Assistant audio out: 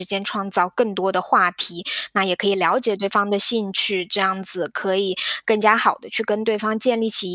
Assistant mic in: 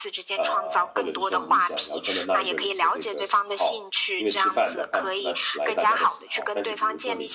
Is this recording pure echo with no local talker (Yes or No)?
No